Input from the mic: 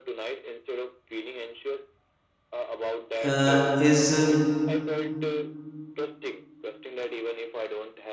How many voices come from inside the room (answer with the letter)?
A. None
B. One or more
B